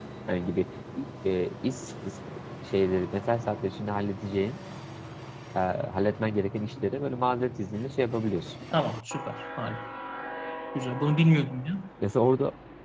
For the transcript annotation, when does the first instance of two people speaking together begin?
none

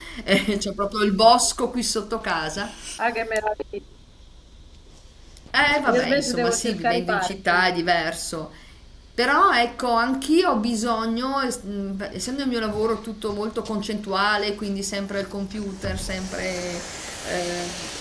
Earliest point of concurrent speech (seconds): 5.9 s

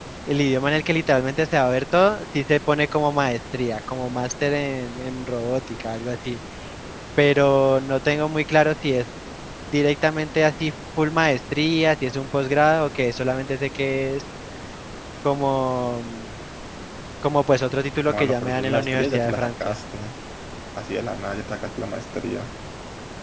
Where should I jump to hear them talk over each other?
17.9 s

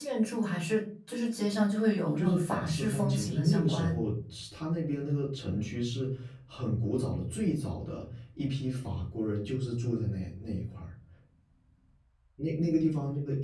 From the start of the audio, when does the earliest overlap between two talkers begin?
2.2 s

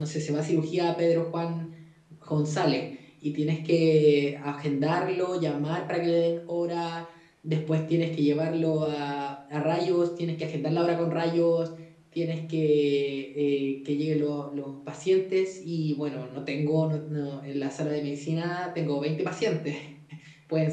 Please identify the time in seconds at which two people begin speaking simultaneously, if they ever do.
none

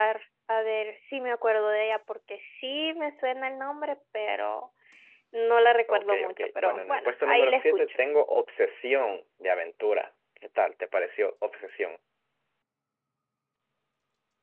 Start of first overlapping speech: 5.9 s

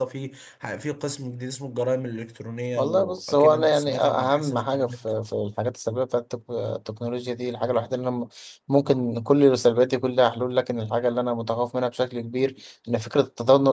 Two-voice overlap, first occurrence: 2.8 s

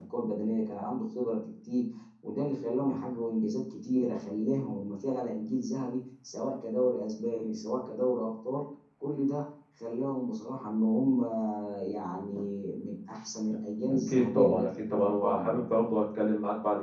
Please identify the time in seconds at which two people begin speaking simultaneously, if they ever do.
13.9 s

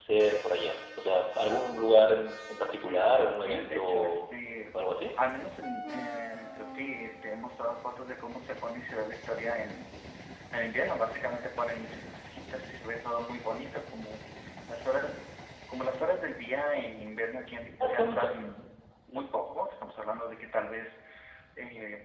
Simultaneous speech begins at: 2.8 s

